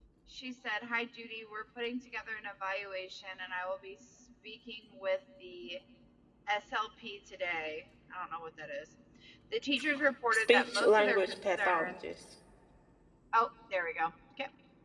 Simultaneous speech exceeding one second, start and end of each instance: 10.3-11.9

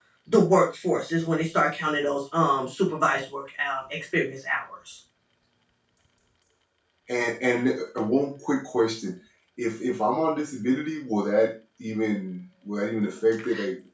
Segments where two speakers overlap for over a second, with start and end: none

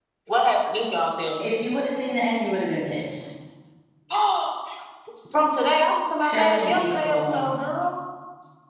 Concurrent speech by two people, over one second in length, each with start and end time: 6.2-7.5

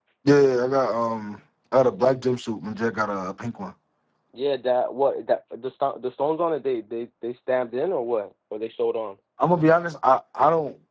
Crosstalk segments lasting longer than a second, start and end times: none

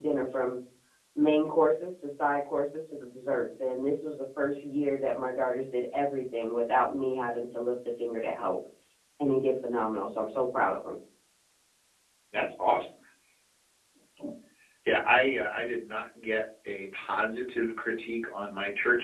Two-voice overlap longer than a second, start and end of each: none

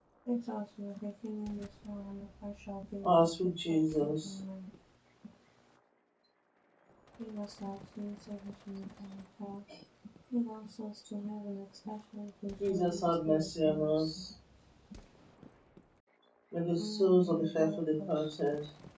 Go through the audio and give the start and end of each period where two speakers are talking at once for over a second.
3.0-4.3, 12.7-14.3, 16.8-18.1

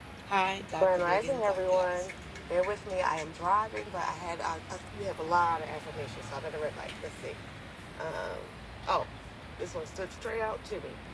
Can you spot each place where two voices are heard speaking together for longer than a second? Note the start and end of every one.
0.8-2.1

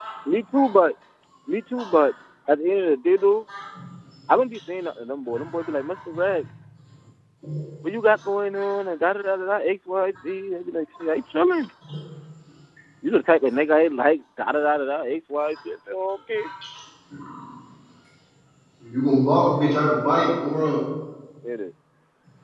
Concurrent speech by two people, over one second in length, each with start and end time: none

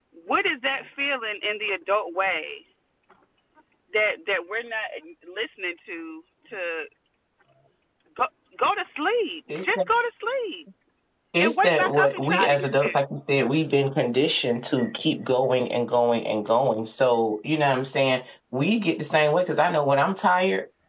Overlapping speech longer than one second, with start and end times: 11.4-13.0

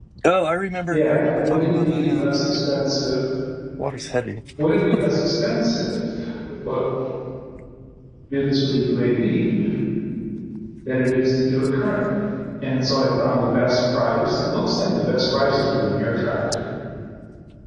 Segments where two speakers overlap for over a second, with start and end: 0.9-2.3

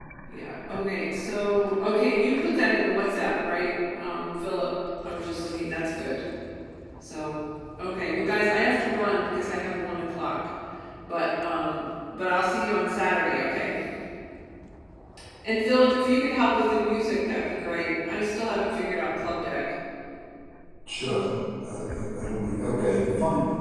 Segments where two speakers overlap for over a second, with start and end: none

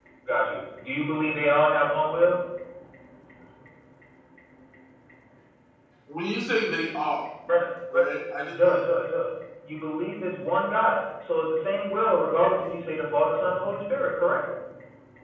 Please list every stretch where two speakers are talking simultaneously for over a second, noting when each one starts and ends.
none

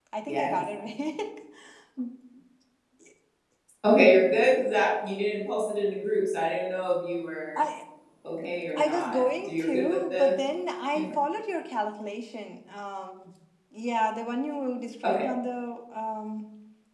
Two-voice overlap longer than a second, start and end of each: 8.8-10.3

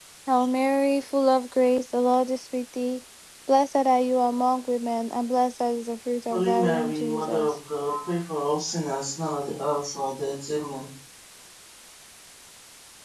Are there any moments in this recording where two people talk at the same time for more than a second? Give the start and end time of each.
6.3-7.5

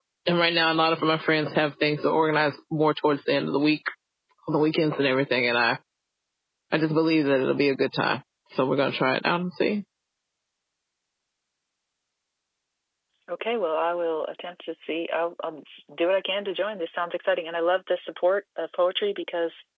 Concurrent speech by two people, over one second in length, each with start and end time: none

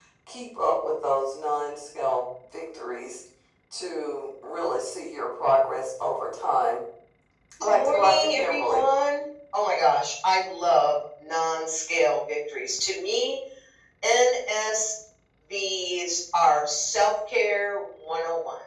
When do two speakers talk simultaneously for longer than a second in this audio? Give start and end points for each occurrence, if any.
7.6-8.8

